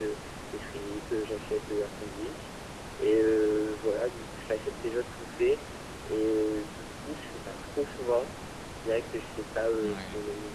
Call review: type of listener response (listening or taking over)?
listening